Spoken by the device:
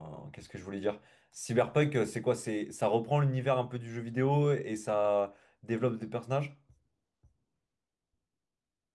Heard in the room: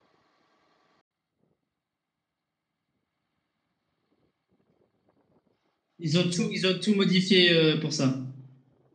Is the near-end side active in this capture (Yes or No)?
Yes